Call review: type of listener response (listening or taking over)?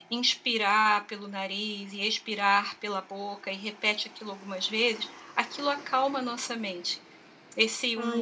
listening